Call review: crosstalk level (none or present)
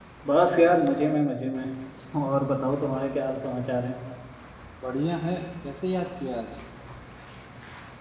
none